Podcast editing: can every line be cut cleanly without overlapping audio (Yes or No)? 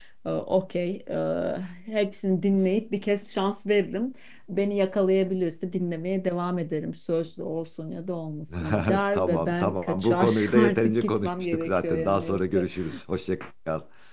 No